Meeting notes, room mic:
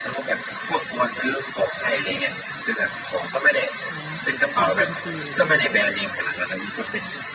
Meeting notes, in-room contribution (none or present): present